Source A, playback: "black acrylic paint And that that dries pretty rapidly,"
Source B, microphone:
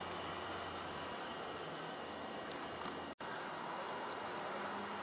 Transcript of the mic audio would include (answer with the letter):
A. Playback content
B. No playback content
B